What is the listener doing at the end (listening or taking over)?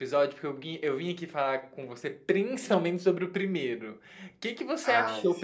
listening